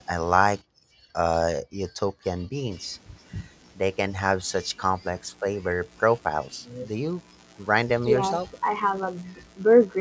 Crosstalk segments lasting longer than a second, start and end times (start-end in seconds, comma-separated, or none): none